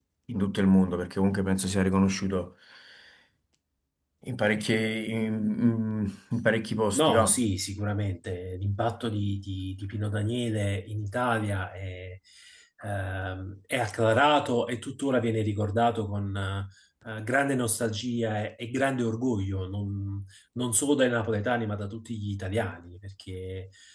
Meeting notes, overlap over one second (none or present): none